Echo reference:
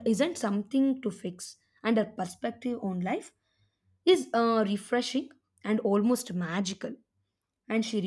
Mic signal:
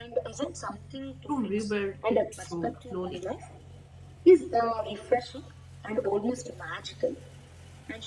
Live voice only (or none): to rebuild it so slowly.